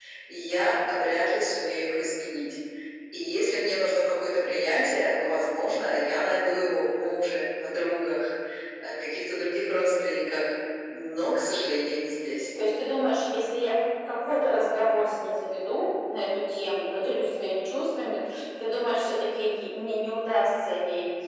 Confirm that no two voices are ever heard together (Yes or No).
Yes